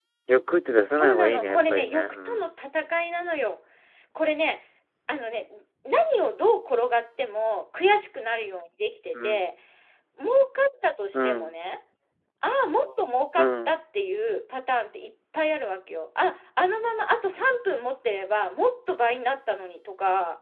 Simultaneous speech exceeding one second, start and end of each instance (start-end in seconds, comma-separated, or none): 0.9-2.5